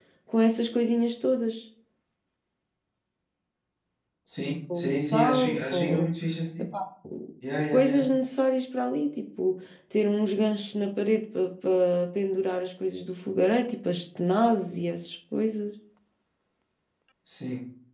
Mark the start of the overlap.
5 s

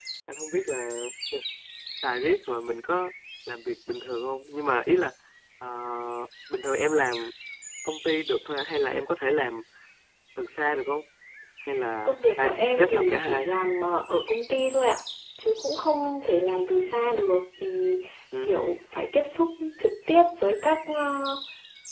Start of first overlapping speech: 12 s

